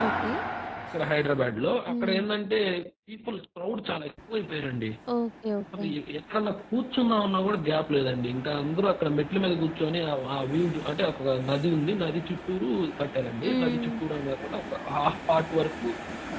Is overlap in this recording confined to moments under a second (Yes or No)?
Yes